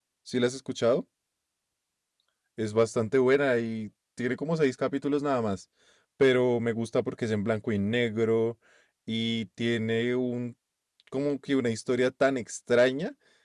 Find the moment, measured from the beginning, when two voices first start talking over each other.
none

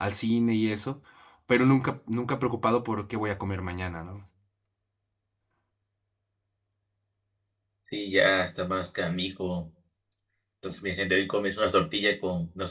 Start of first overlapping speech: none

